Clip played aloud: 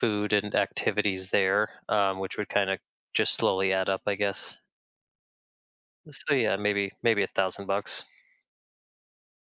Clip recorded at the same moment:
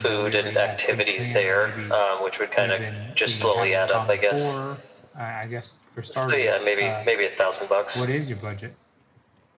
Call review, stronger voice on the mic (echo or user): echo